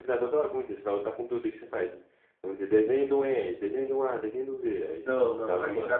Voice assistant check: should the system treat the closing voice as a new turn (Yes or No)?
Yes